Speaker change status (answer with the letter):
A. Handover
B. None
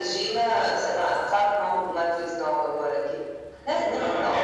A